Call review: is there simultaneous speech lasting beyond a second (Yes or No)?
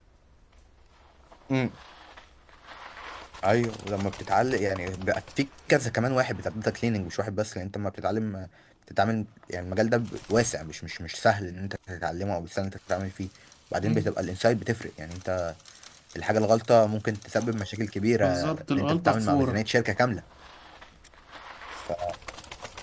Yes